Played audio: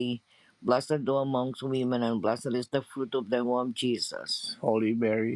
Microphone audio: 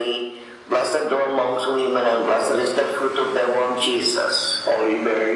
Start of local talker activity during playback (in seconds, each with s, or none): none